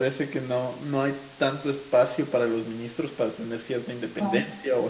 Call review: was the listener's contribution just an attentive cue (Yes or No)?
Yes